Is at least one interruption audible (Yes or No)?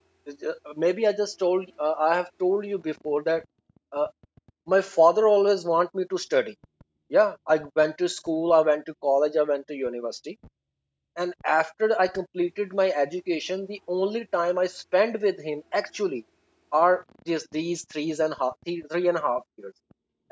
No